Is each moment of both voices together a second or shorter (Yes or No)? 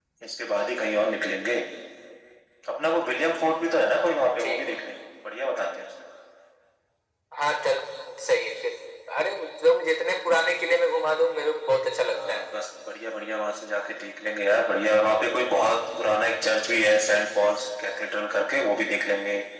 Yes